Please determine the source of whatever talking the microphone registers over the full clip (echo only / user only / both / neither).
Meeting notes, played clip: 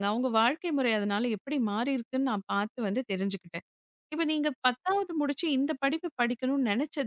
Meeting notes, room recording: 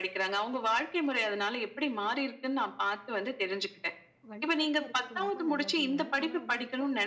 both